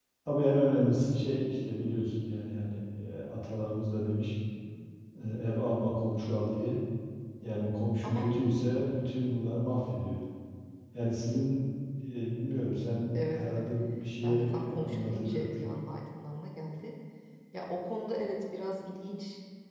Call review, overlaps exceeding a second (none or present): present